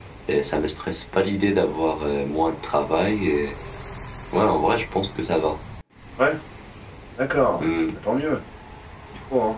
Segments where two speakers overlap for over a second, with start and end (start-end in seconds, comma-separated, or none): none